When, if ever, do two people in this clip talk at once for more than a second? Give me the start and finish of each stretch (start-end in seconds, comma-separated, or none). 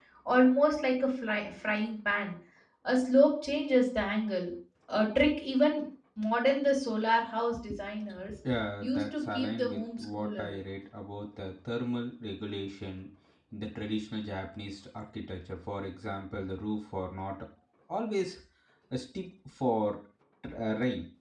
8.8-10.5